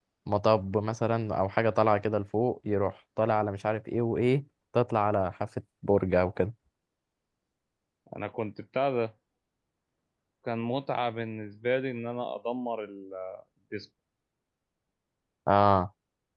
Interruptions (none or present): none